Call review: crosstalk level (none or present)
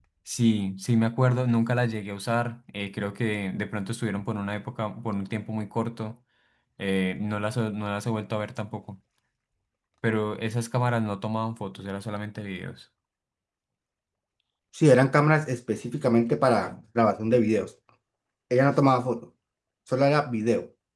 none